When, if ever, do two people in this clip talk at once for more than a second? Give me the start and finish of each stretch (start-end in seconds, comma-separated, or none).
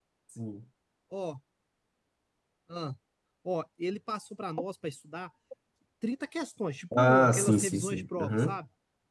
7.0-8.6